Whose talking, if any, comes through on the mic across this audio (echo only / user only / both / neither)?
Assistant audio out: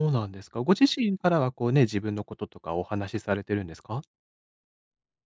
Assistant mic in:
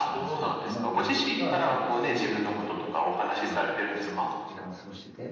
both